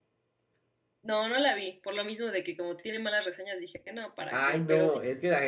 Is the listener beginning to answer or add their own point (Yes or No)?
Yes